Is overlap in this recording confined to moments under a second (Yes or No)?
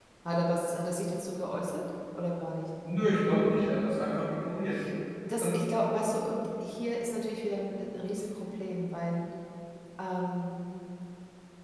Yes